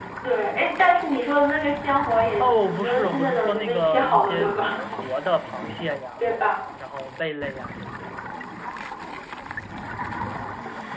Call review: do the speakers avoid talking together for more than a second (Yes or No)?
No